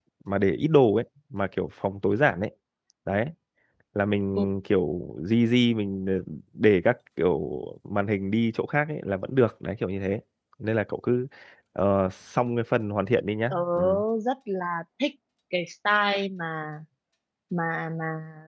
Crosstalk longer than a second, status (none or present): none